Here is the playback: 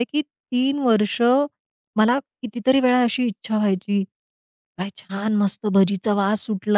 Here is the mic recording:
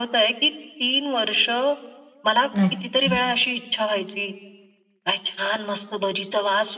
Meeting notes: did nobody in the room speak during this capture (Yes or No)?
No